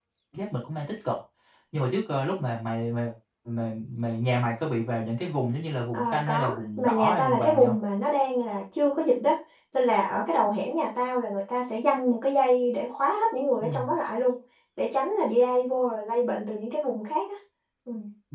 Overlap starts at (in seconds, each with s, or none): 5.9 s